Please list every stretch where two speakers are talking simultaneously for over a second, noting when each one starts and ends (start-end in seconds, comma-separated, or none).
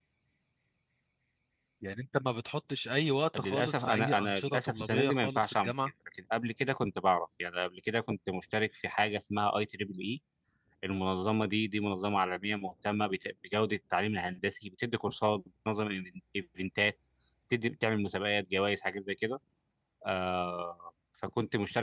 3.4-5.7